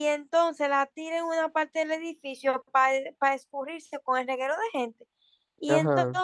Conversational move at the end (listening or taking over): listening